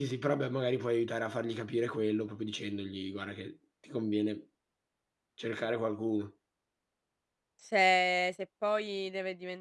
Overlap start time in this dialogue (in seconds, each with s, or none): none